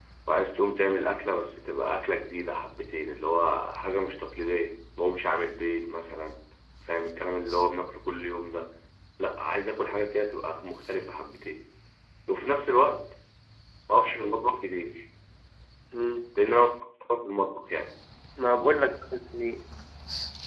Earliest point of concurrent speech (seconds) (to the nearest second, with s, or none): none